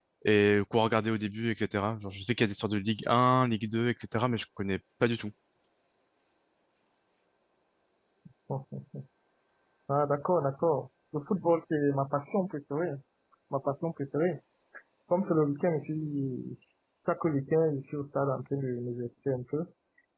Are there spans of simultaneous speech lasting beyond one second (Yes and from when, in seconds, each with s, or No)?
No